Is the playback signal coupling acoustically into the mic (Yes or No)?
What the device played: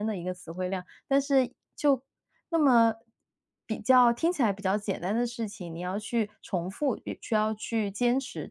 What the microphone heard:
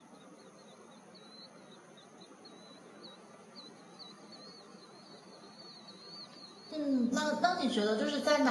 No